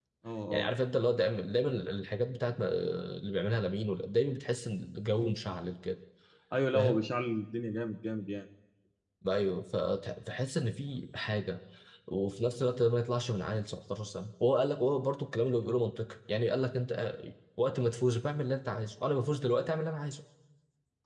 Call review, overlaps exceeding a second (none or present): none